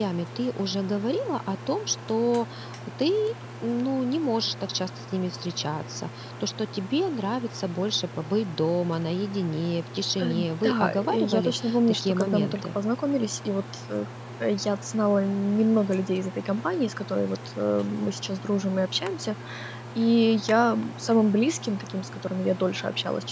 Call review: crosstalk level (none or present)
present